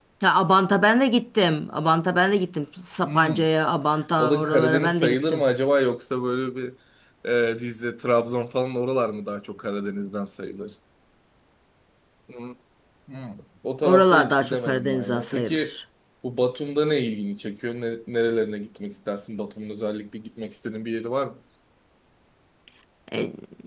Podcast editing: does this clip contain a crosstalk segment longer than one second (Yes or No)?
Yes